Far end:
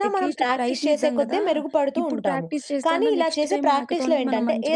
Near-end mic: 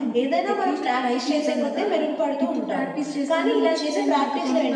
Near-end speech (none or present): none